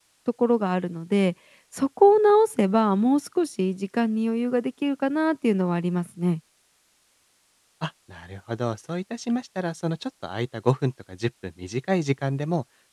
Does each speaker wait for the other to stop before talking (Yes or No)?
Yes